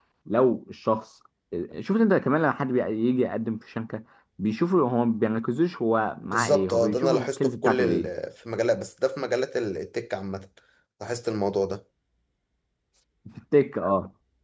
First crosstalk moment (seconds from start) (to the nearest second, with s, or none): 6 s